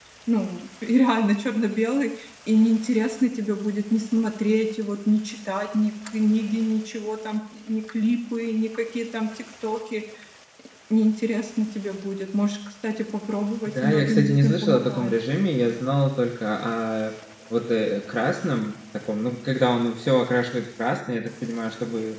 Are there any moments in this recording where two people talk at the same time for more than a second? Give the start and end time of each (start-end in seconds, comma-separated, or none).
13.6-15.1